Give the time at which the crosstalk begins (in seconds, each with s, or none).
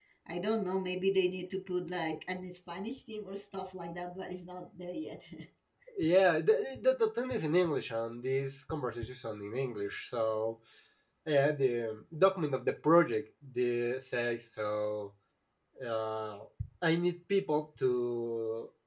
none